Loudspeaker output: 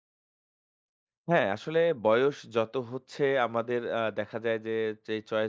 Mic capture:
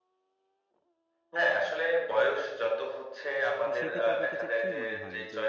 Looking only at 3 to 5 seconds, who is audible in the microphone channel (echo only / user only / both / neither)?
both